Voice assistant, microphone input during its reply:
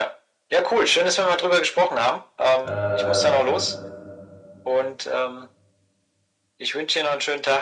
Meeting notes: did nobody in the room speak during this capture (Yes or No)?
No